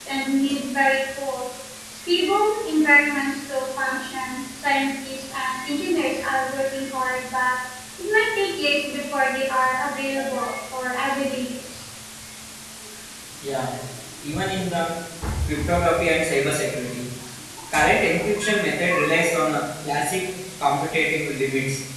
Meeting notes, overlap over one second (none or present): none